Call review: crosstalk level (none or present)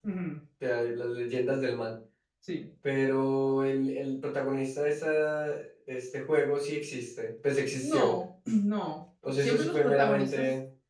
present